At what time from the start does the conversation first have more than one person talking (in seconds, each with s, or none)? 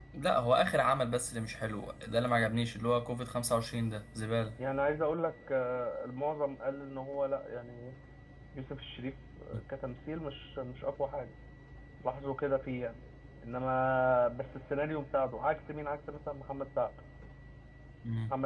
none